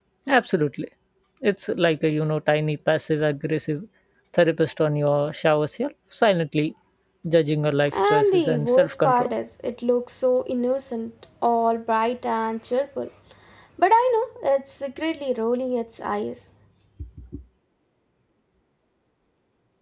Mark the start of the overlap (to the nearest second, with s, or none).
8 s